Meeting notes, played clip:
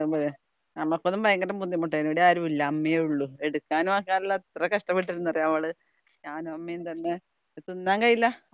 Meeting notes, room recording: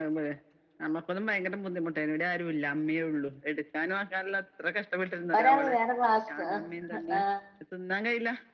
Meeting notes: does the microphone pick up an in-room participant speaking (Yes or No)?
Yes